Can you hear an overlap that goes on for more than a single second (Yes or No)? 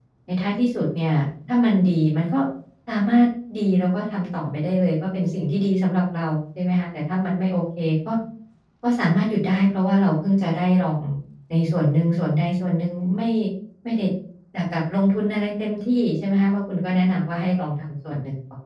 No